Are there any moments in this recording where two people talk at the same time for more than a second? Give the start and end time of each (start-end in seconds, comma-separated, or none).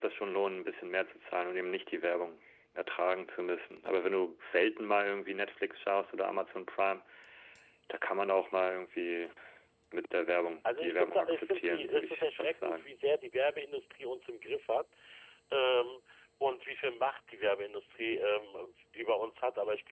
10.8-13.0